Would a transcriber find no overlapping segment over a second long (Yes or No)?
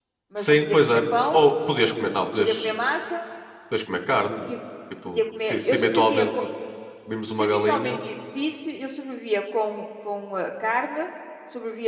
No